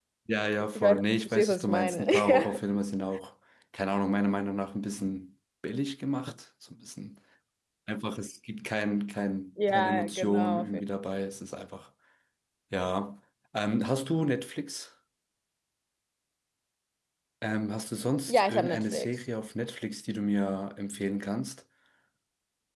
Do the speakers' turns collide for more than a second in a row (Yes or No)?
Yes